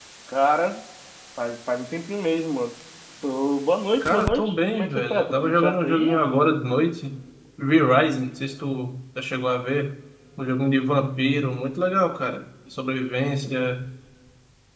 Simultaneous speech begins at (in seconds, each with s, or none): 4.0 s